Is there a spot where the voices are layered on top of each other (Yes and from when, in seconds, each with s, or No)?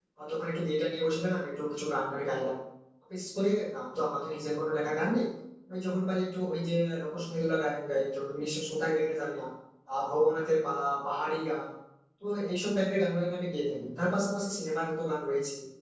No